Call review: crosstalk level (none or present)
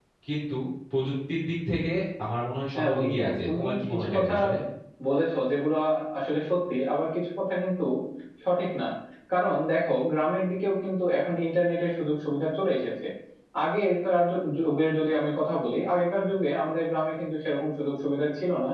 present